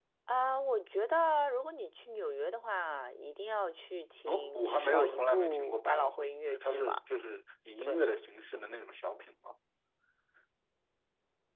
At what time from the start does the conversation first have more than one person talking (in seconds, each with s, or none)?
4.3 s